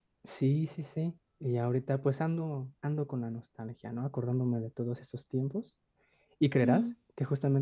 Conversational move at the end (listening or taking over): listening